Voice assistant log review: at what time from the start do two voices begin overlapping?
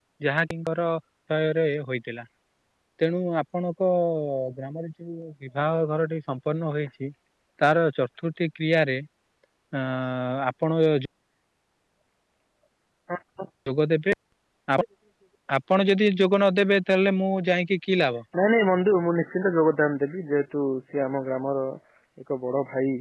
none

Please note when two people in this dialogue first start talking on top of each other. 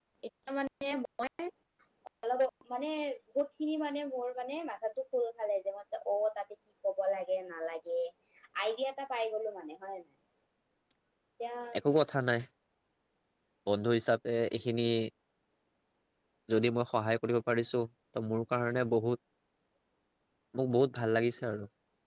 none

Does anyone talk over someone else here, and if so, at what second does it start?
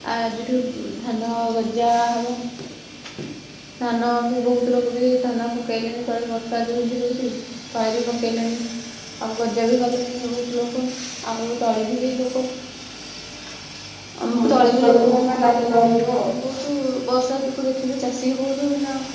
14.3 s

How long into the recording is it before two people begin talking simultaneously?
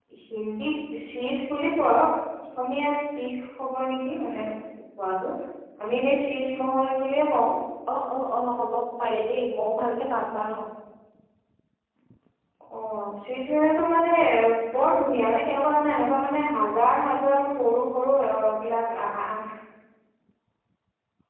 none

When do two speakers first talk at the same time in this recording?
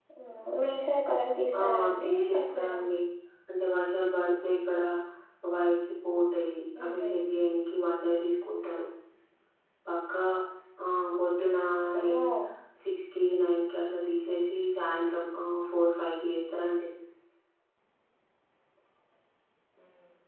1.6 s

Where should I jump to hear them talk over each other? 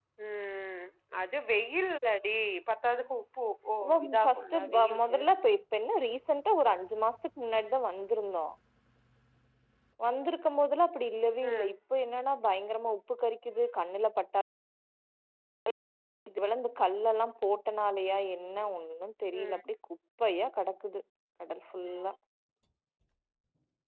3.9 s

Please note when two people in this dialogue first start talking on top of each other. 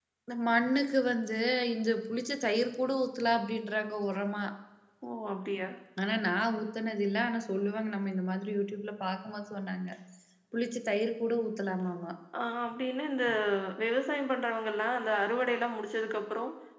none

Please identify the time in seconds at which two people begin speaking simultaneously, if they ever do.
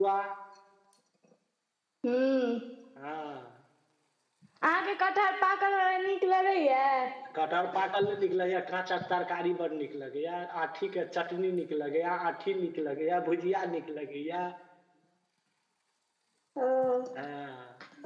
none

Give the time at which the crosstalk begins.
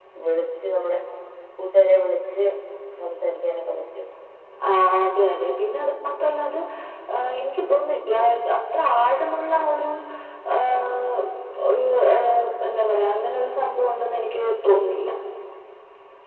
none

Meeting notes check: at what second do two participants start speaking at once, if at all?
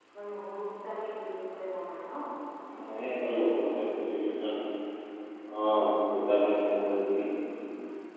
none

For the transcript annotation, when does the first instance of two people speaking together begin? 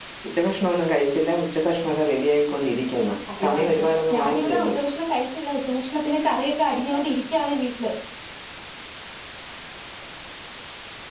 3.3 s

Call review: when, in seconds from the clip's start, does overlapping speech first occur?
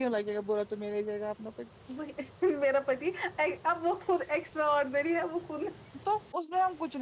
none

